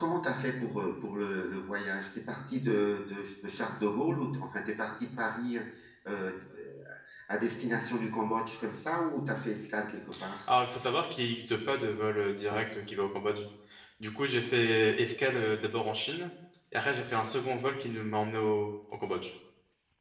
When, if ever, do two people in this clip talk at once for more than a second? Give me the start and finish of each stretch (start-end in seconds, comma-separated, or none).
none